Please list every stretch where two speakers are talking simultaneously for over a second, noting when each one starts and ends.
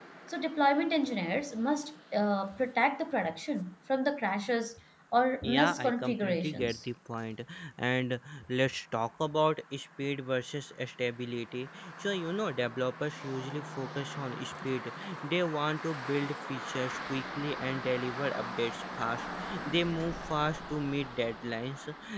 5.4-6.8

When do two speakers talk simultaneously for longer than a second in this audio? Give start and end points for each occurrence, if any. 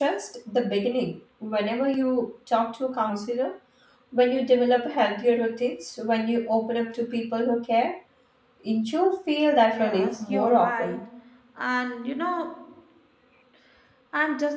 9.7-11.1

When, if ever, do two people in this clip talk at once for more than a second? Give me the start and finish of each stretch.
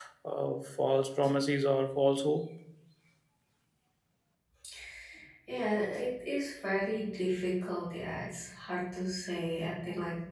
none

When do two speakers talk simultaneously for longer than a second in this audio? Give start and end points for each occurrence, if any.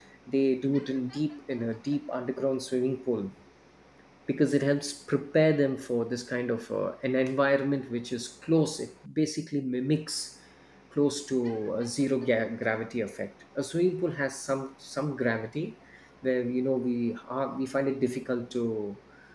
none

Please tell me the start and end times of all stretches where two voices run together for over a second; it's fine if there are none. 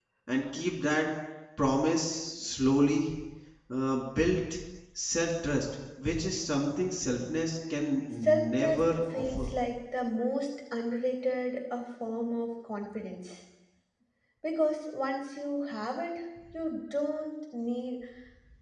8.2-9.5

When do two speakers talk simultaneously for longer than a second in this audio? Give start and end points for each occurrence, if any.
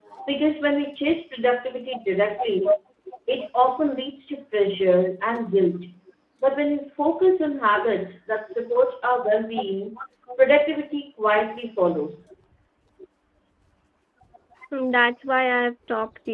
none

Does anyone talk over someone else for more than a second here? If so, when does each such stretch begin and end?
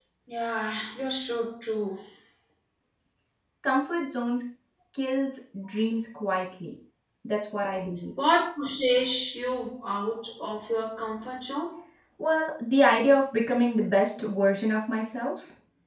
none

